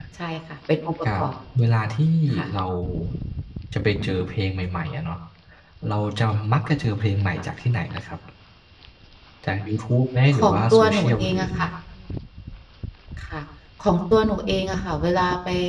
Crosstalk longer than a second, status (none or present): present